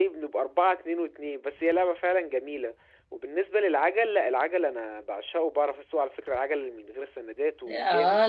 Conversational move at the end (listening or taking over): taking over